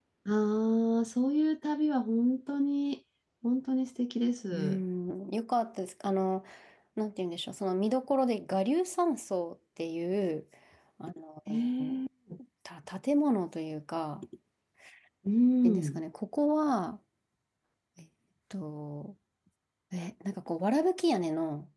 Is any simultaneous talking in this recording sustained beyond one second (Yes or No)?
No